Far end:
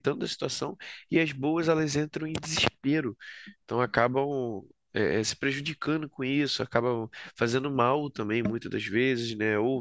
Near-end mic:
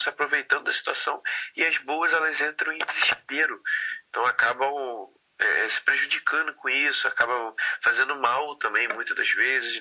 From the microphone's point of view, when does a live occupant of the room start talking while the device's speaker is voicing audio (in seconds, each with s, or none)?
none